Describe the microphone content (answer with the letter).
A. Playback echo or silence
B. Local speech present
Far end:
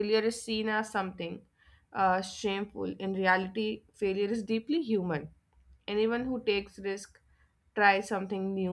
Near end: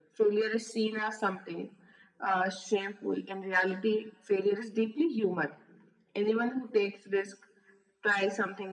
A